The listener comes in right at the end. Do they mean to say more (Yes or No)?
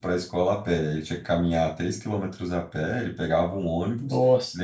No